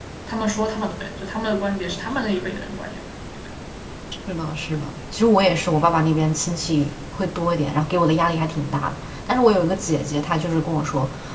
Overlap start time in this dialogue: none

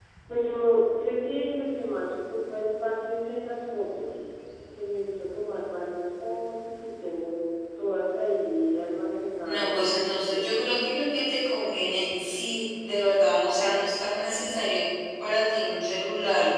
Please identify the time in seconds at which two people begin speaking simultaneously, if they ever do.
9.4 s

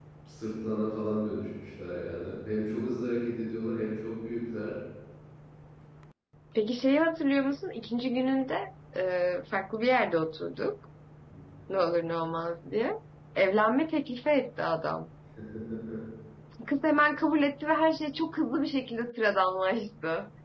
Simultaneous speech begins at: none

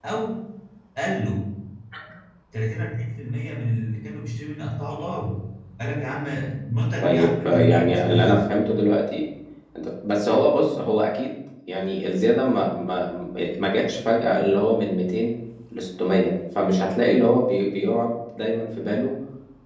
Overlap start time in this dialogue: 7.0 s

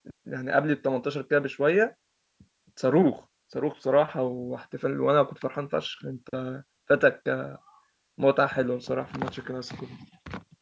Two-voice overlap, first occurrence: none

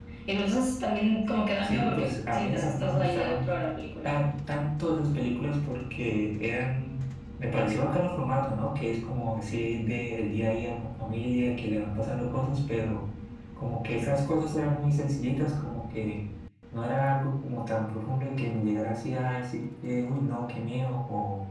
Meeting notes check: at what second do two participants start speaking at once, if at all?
1.6 s

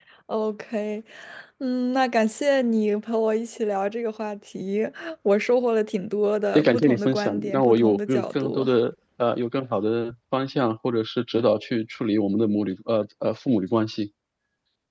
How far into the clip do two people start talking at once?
6.5 s

